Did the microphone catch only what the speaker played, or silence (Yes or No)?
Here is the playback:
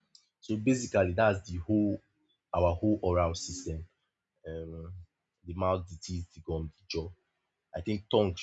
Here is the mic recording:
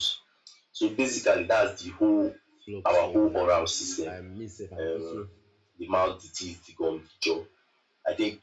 No